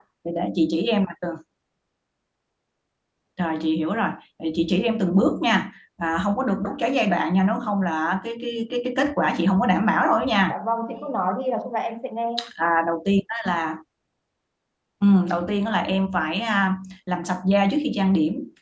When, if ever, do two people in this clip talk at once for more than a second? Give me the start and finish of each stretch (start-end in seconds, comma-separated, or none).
none